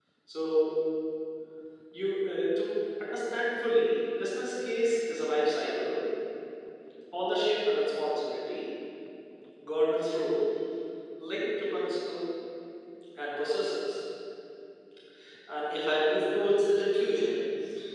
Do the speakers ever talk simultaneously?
No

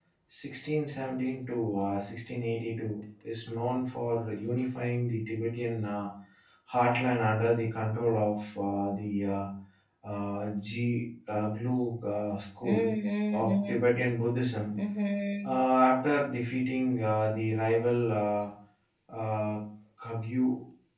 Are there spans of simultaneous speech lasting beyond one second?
No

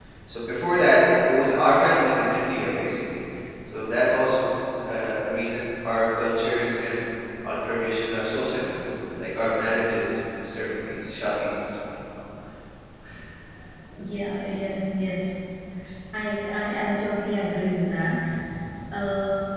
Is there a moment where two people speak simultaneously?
No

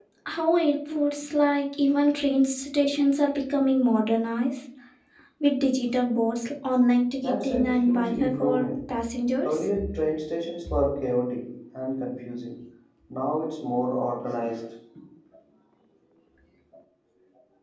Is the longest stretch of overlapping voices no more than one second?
No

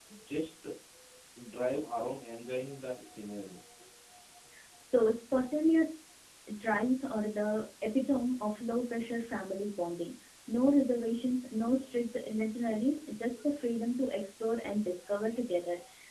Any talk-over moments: No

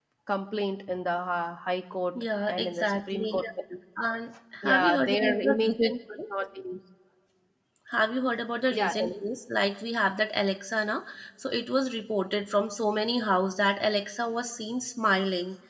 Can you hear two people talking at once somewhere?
Yes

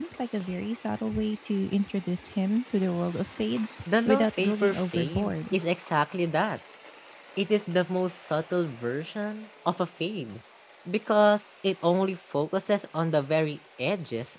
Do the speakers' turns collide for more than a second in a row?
Yes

